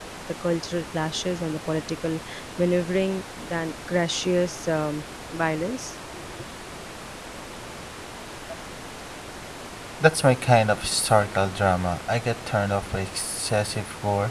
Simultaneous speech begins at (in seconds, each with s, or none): none